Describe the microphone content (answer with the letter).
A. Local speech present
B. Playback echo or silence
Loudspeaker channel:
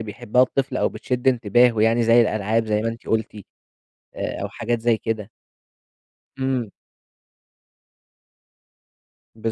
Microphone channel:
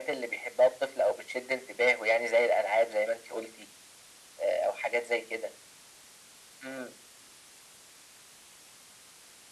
B